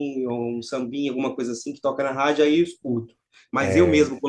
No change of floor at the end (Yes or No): Yes